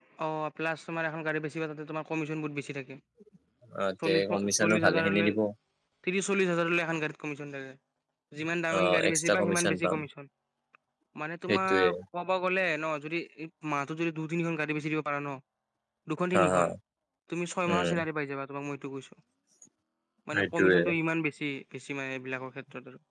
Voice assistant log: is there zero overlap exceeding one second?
No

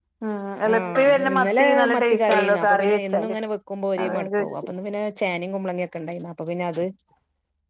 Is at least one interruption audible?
Yes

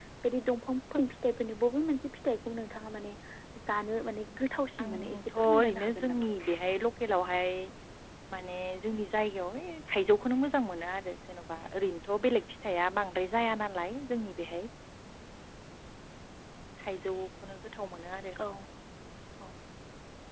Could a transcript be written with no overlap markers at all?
No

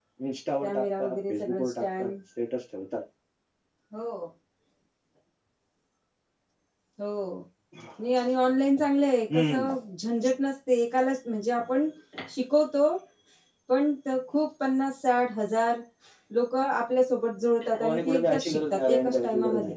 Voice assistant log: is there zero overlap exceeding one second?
No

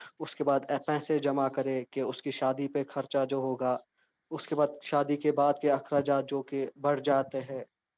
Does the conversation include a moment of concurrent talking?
No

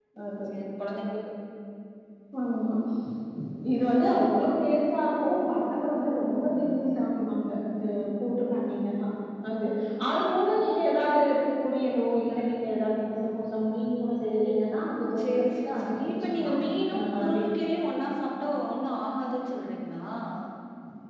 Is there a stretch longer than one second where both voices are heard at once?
Yes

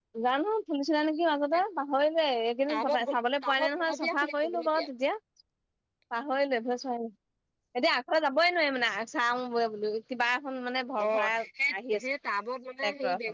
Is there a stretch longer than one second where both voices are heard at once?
Yes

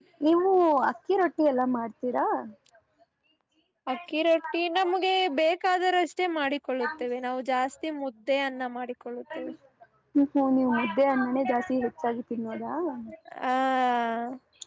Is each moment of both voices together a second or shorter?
Yes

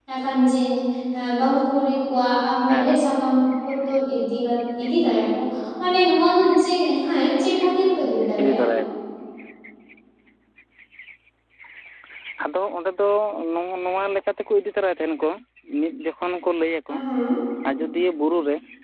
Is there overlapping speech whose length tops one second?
No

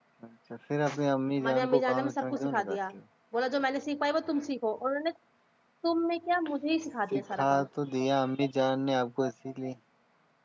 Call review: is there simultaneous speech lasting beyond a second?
Yes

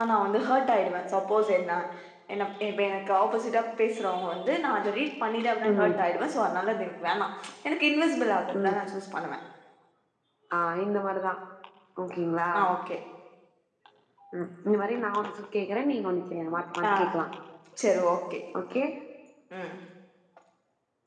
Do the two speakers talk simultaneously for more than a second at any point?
No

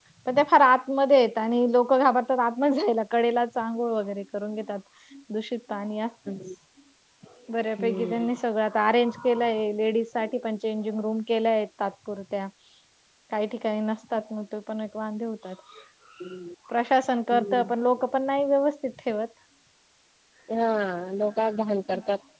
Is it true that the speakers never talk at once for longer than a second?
Yes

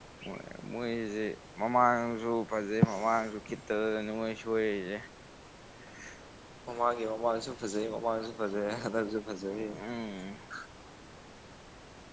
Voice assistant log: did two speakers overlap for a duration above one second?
No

